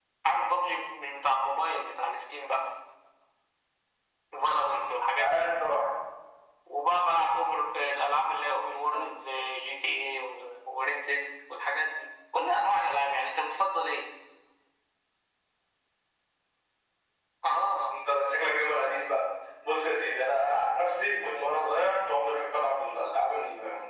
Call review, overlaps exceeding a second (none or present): none